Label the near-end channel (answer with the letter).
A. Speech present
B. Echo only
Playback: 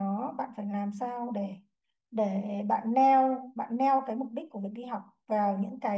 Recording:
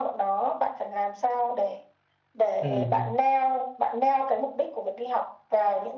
A